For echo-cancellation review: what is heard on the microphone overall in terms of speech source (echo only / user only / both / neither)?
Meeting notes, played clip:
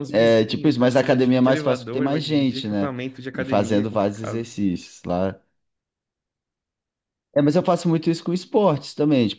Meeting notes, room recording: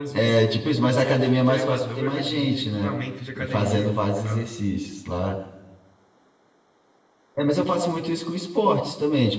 echo only